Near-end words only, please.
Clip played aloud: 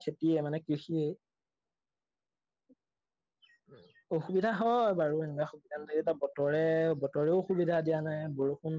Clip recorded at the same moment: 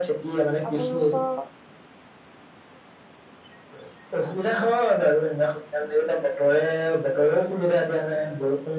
আপোনালোকৰ

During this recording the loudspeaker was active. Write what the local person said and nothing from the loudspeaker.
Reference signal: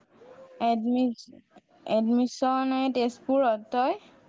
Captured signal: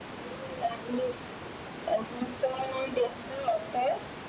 none

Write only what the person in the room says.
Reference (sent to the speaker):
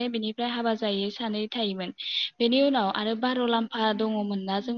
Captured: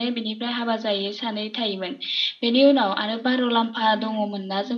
none

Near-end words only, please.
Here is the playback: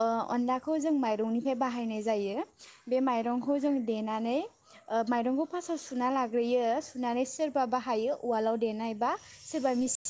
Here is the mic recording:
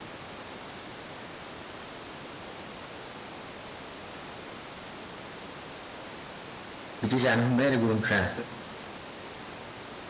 बिदि जानो हमबाय आरो गुबुनफ्रा।

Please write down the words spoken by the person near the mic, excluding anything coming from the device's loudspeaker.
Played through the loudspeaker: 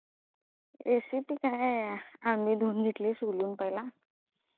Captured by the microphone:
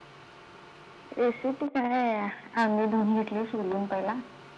none

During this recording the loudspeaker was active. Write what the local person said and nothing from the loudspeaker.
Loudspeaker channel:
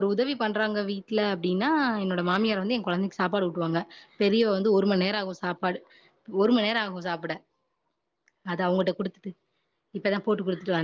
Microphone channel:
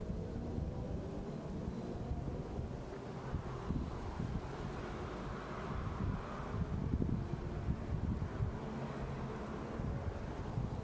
none

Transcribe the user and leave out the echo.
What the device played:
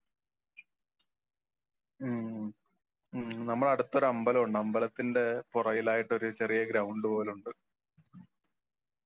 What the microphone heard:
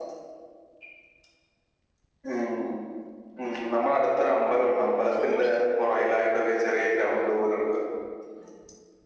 ചൂട്

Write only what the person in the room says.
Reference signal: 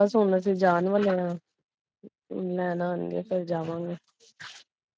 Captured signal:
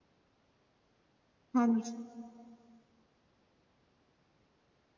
ਹਾਂਜੀ

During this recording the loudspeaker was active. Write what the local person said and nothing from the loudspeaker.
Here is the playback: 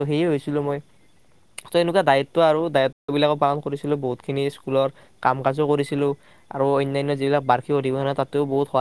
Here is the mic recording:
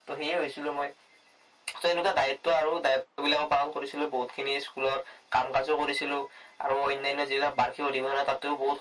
none

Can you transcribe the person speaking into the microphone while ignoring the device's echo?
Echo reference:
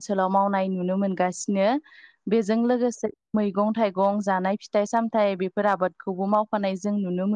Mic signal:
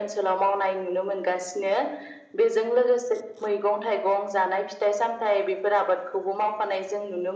none

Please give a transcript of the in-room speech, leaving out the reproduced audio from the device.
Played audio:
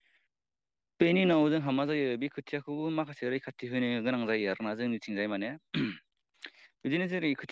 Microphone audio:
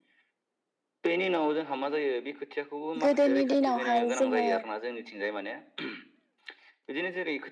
गोदोनि दिनावहाय जोङो

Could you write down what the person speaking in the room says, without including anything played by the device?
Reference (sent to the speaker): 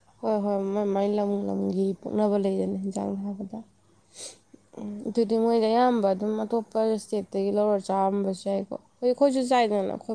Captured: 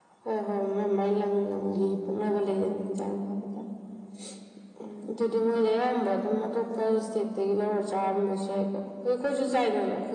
none

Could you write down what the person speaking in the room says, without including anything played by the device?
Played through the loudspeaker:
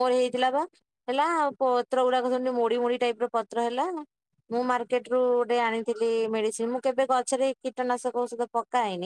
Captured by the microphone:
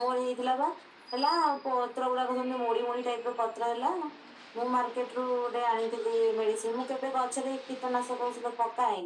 none

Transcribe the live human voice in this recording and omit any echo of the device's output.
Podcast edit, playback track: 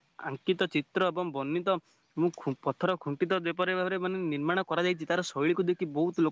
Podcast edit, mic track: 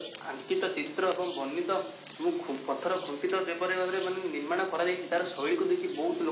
none

